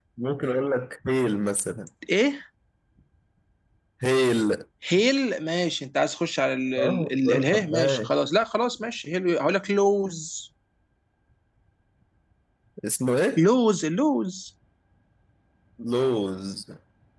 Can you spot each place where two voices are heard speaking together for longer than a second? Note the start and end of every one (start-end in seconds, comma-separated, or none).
6.8-8.2